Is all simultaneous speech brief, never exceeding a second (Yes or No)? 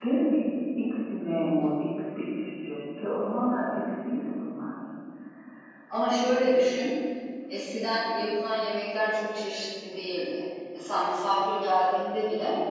Yes